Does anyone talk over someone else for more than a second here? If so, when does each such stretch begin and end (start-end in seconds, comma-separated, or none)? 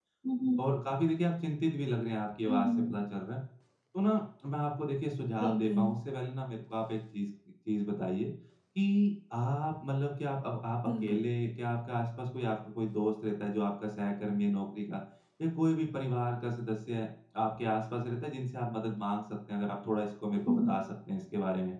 none